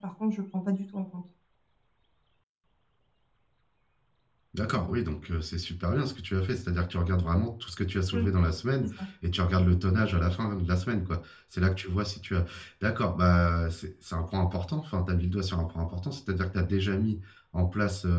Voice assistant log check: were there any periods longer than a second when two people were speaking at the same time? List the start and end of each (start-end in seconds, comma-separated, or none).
none